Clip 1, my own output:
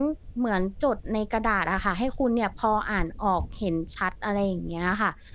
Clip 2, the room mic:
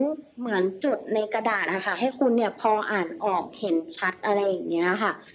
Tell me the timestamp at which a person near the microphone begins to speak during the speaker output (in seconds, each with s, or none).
none